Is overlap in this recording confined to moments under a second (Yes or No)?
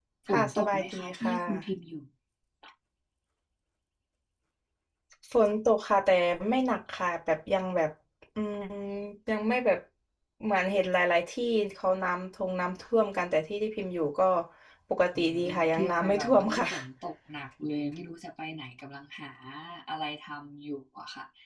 No